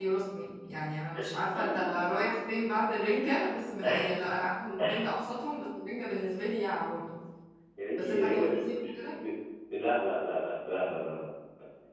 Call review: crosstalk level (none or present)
present